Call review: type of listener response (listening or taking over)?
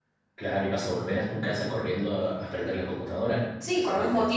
taking over